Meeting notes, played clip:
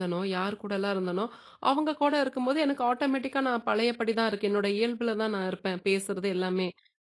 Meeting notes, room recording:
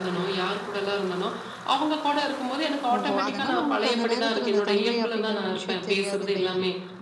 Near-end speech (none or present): present